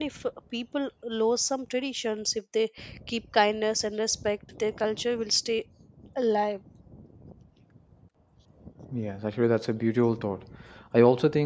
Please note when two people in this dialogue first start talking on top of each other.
none

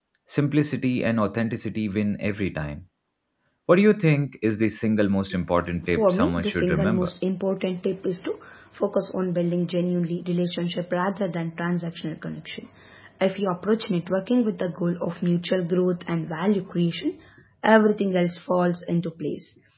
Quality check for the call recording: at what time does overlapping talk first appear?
5.8 s

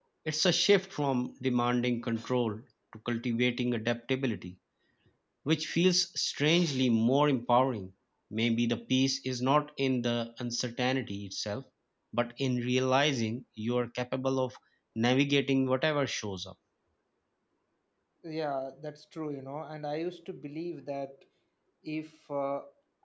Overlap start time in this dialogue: none

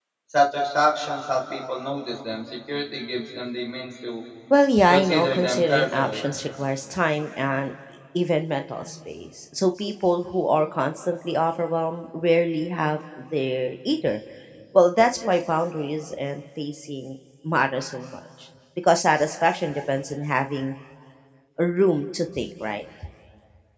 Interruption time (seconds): 4.9 s

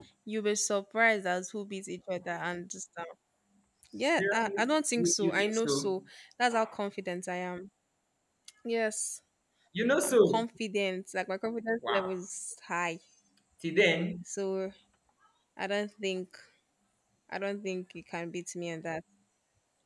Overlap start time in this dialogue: 4.2 s

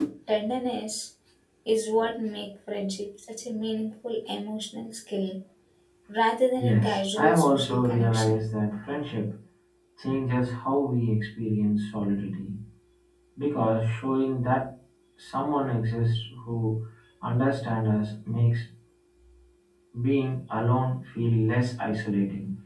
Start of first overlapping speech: 6.6 s

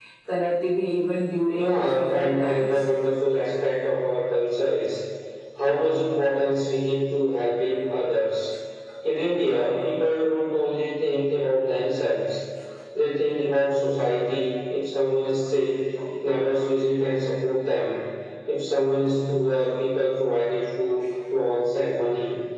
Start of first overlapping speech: 1.5 s

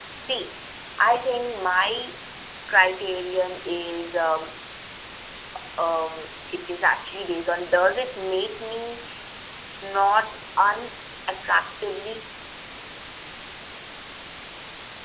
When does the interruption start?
none

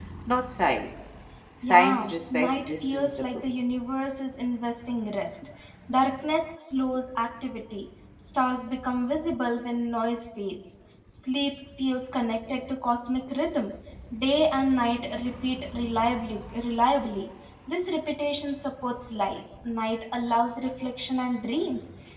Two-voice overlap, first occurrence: 1.6 s

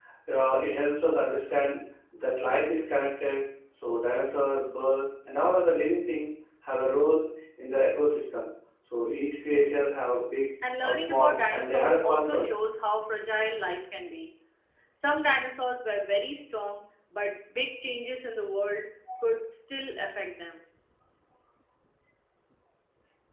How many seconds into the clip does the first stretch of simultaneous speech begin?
10.6 s

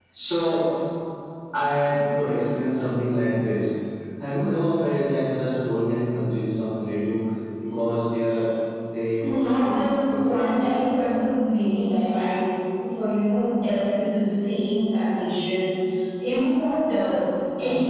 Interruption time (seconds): 9.2 s

